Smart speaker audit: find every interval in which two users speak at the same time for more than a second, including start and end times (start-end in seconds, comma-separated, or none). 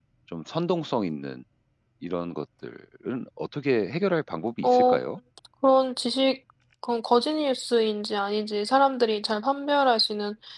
none